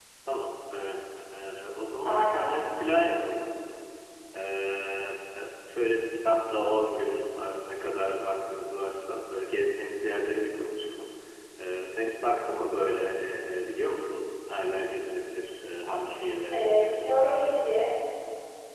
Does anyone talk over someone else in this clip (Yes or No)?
Yes